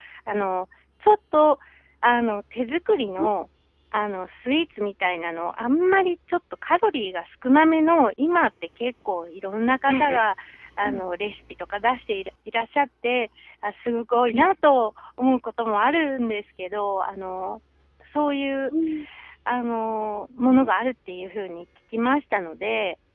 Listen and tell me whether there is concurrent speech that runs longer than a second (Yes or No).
No